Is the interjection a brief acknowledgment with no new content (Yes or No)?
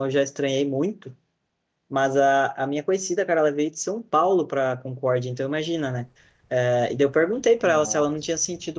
Yes